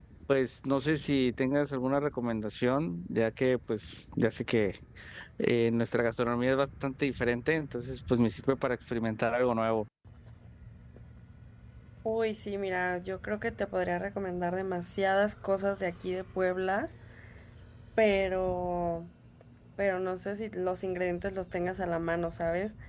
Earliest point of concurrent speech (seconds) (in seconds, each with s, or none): none